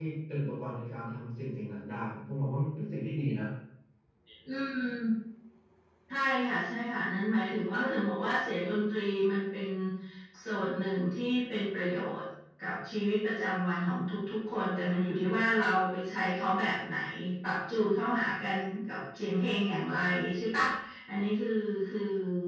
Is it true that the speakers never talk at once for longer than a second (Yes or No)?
Yes